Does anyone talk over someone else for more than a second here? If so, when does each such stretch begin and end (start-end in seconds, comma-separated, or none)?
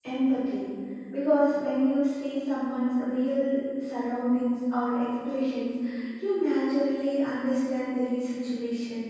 none